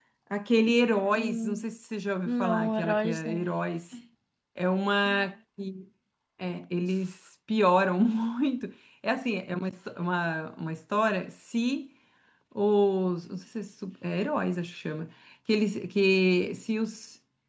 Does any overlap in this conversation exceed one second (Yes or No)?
Yes